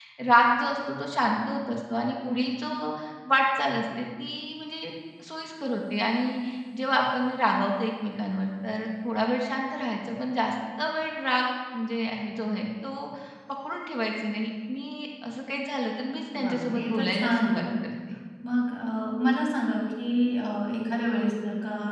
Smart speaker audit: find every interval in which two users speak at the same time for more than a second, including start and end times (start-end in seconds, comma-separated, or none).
16.4-17.6